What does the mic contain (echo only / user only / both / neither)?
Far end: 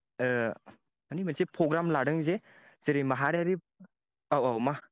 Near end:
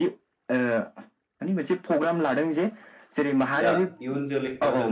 both